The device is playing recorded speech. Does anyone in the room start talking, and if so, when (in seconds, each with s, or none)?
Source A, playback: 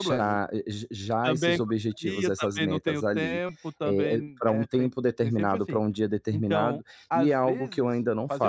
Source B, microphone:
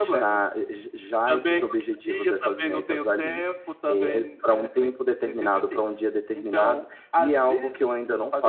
none